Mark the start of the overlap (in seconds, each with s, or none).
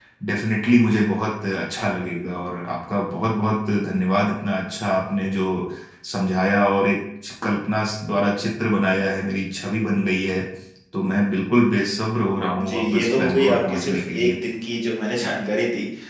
12.6 s